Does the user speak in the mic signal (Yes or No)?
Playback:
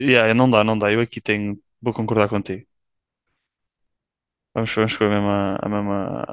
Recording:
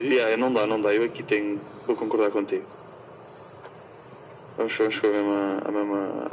No